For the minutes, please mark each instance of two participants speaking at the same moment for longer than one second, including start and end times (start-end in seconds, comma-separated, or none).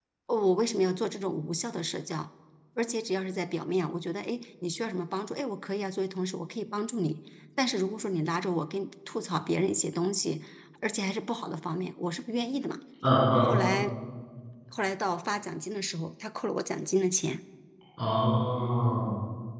none